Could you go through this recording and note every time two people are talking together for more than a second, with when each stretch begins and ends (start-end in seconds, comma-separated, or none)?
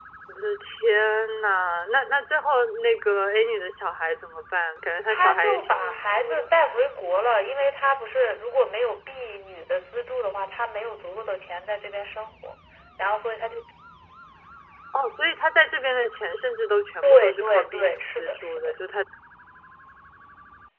5.1-6.5, 17.0-18.7